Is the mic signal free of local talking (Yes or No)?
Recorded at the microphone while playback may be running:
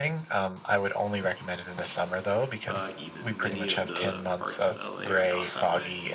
No